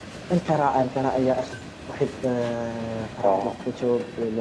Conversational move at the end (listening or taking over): listening